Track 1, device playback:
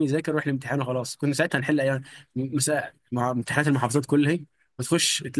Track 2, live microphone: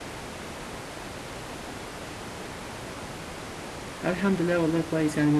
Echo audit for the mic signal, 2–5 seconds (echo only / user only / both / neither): user only